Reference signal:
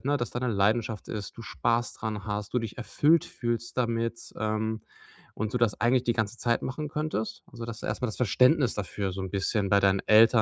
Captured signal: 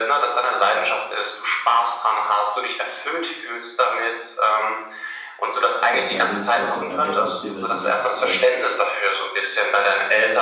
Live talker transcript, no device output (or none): dass mal wenn ich das halt meinen Eltern erzähle, dass ich halt wirklich, äh,